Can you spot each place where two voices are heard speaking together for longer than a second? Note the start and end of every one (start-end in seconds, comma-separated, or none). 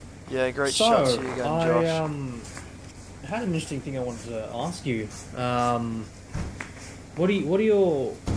0.7-2.0